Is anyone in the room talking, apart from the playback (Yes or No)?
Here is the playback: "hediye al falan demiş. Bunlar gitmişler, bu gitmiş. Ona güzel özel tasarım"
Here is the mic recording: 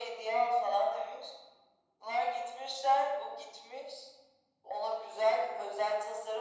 No